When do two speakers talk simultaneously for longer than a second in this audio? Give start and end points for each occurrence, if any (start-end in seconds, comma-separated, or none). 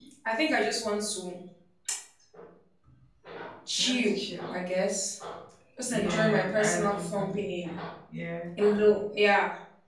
5.9-7.5